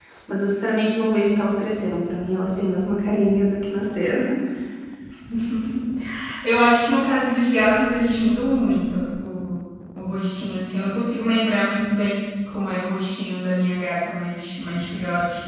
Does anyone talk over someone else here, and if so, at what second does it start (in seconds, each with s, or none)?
none